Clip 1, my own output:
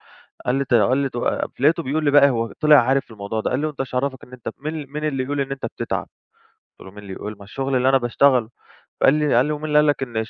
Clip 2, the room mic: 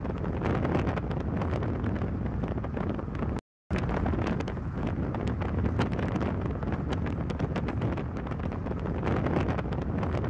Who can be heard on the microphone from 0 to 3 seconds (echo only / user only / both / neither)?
neither